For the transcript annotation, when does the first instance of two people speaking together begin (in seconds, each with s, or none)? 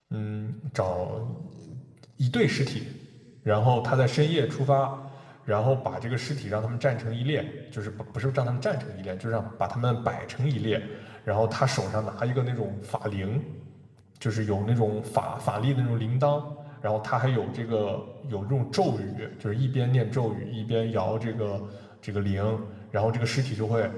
none